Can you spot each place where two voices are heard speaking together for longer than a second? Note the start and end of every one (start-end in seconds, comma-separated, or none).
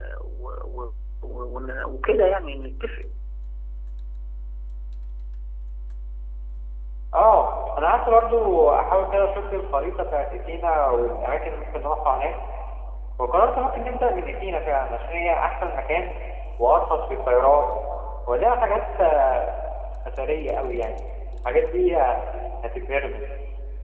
none